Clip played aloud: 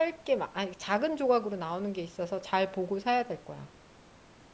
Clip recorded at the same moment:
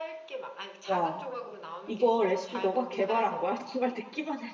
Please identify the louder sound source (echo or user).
user